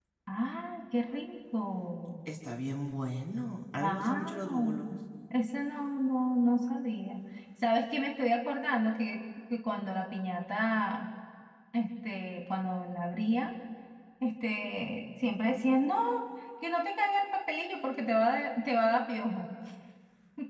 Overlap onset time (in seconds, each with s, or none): 3.8 s